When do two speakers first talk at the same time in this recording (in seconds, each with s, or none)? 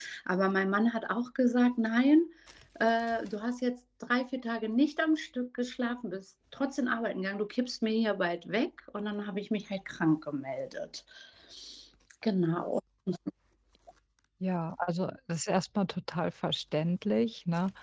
none